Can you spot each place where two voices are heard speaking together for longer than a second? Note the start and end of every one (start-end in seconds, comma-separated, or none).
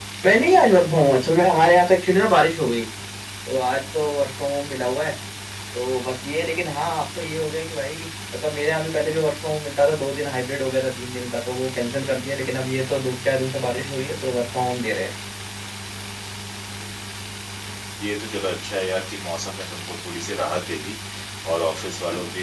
none